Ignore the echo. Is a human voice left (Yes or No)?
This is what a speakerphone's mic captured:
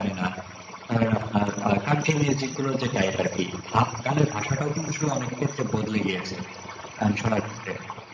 No